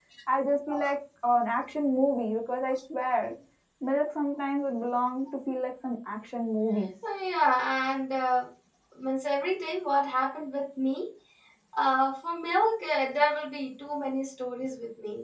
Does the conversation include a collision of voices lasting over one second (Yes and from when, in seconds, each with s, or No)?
No